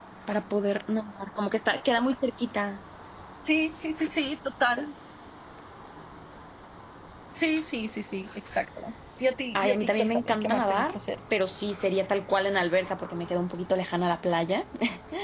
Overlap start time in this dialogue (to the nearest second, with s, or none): 10 s